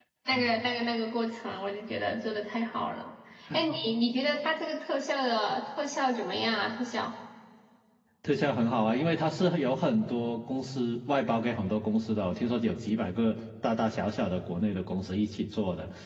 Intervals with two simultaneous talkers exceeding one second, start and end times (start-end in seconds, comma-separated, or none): none